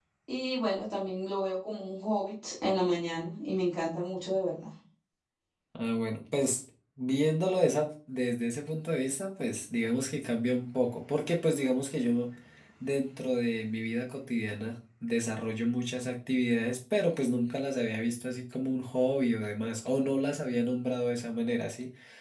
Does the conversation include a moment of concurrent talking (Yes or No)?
No